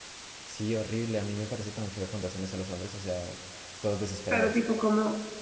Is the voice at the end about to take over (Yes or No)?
Yes